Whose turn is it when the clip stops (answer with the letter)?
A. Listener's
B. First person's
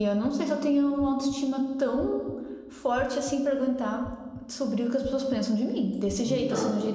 B